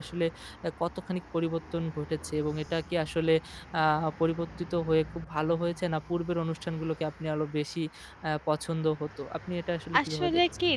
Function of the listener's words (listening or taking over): taking over